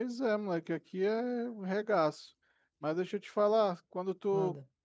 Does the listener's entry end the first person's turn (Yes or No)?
No